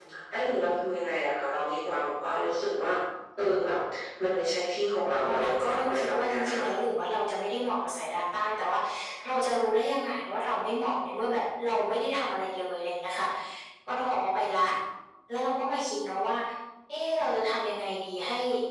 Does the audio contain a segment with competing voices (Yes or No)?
Yes